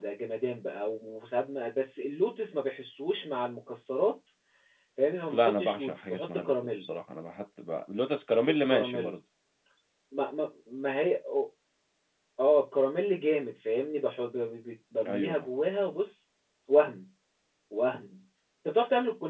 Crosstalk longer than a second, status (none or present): present